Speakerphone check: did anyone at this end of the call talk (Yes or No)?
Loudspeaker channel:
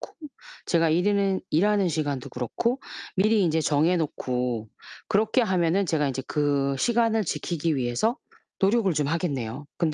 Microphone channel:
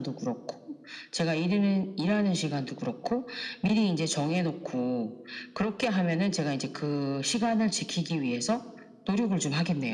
No